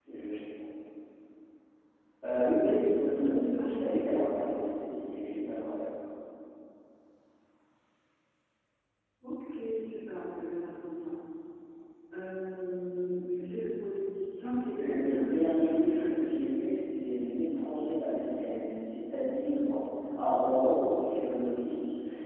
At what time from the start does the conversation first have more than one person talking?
2.6 s

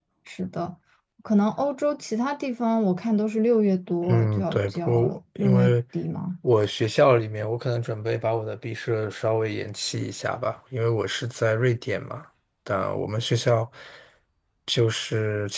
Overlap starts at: 4.0 s

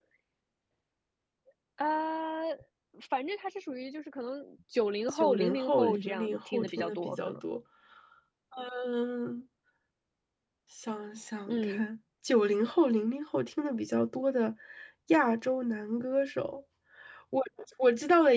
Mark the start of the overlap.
5.1 s

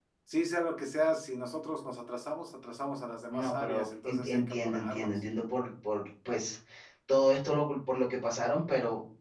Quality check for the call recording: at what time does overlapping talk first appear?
3.3 s

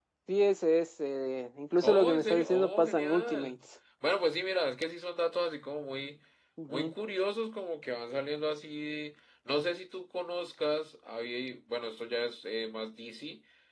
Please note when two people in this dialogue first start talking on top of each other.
1.8 s

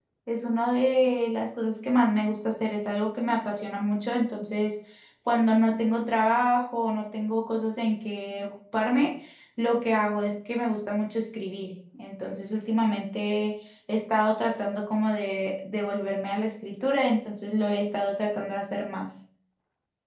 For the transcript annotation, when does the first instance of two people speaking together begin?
none

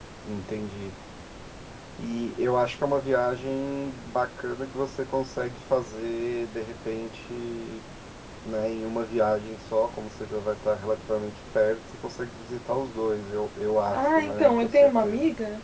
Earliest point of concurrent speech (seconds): 13.9 s

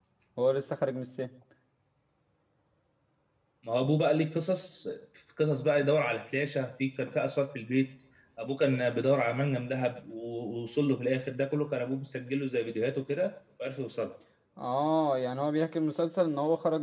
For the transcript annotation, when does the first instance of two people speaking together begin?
none

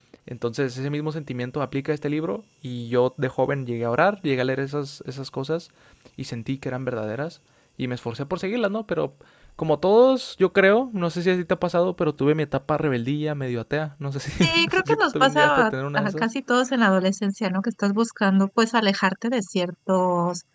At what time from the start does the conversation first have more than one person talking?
14.4 s

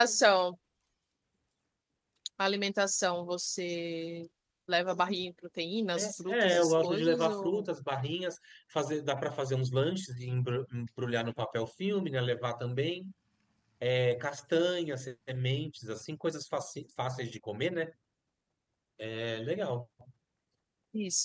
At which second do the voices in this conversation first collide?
6.0 s

